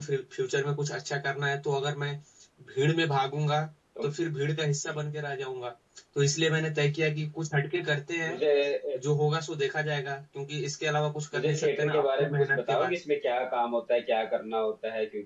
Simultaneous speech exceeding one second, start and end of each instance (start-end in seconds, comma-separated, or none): 11.3-12.9